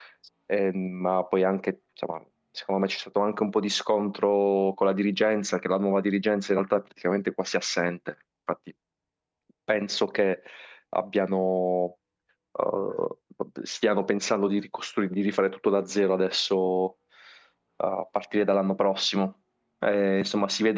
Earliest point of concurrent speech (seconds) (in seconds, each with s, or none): none